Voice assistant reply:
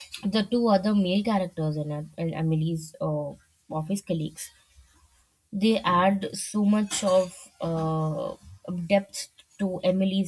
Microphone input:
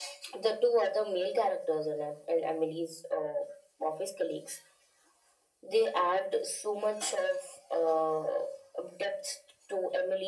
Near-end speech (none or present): none